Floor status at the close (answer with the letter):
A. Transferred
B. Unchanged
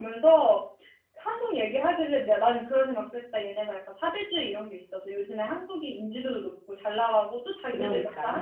B